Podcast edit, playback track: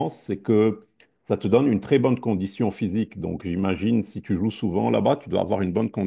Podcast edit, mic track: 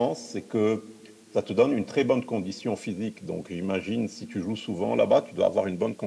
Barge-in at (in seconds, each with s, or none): none